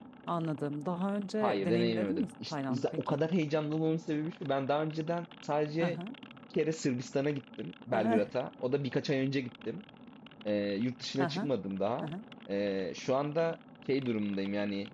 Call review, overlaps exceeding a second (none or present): present